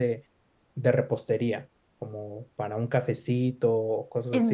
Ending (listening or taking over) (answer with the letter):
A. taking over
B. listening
A